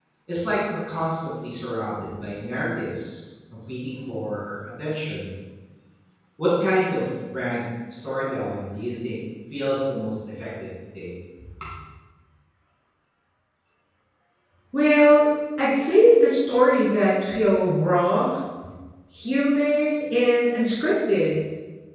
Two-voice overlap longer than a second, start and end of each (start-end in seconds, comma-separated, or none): none